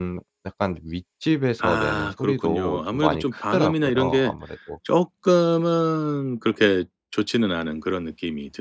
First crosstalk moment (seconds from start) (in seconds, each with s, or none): 1.6 s